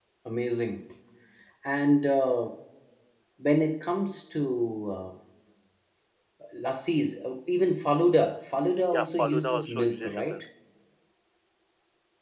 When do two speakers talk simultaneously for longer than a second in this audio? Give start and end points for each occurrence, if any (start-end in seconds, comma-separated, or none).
8.9-10.4